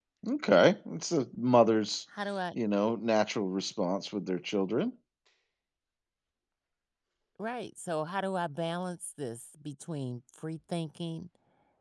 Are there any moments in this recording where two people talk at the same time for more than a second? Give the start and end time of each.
none

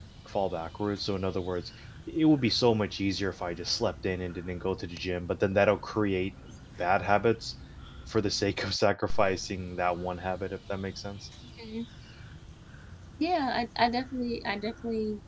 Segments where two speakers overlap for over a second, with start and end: none

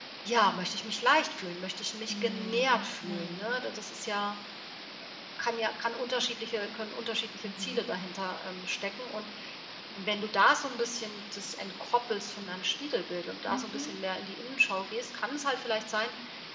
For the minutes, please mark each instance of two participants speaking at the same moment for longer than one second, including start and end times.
2.1-3.5

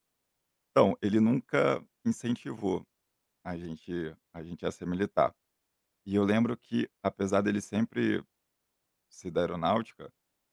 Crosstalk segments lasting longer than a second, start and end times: none

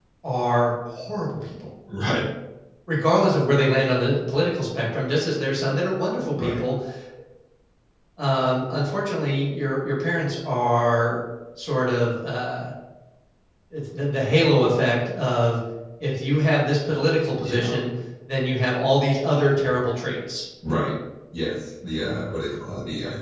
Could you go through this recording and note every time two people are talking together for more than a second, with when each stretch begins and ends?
none

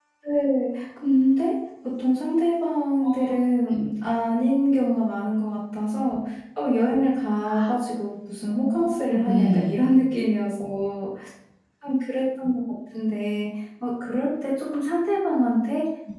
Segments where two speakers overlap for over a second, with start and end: 8.5-9.8

